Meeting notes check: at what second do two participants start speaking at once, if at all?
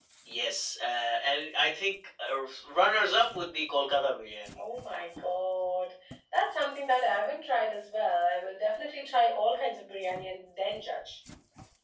none

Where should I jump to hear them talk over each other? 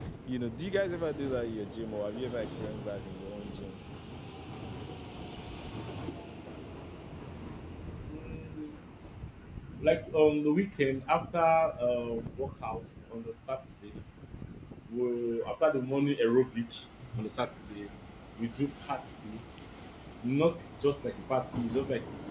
none

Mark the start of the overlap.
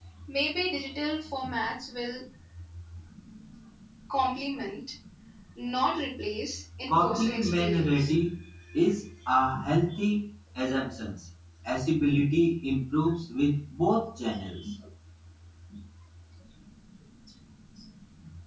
7 s

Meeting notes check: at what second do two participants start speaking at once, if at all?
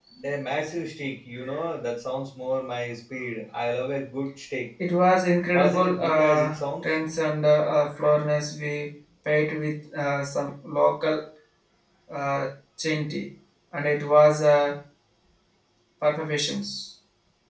6 s

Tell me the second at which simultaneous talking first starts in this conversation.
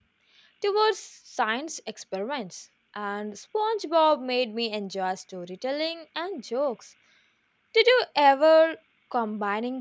none

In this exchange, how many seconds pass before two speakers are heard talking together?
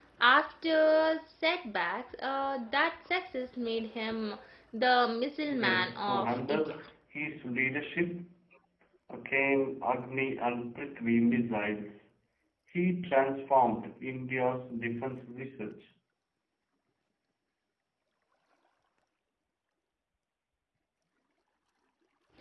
5 s

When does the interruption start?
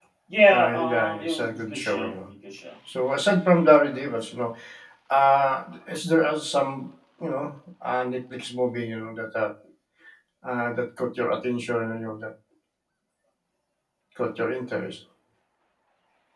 1 s

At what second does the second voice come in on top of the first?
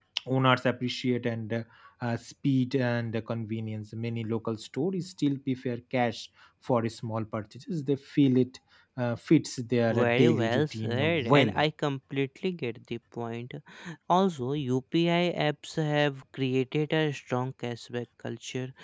10 s

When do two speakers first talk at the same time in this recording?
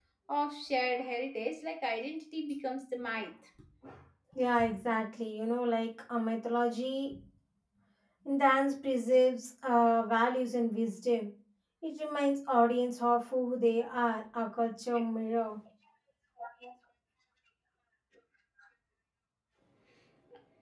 none

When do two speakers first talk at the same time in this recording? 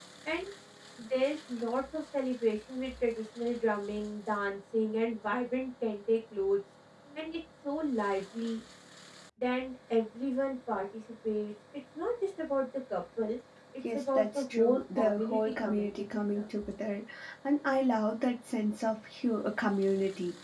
14 s

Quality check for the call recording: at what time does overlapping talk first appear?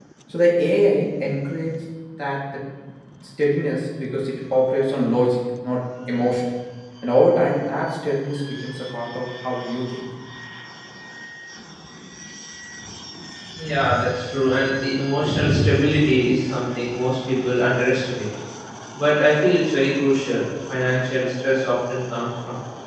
none

